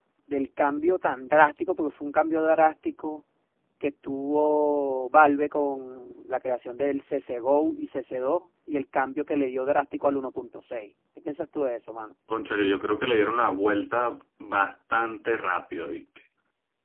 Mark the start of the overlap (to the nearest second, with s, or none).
none